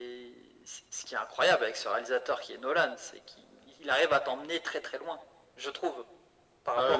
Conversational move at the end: taking over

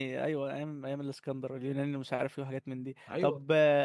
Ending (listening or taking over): listening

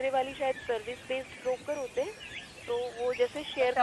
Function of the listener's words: taking over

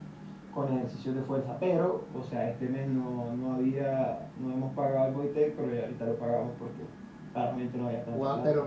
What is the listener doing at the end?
taking over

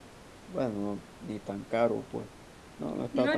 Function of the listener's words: taking over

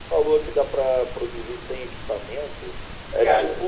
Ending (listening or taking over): listening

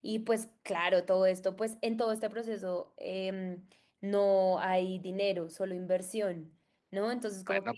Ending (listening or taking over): taking over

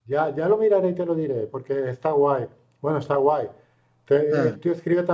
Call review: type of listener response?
listening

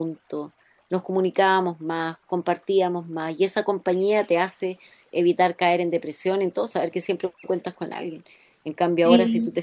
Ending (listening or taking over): listening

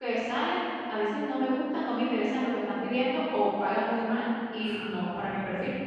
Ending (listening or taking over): listening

